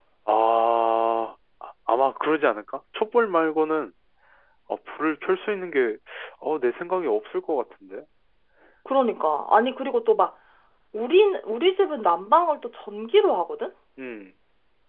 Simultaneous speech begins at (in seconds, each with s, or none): none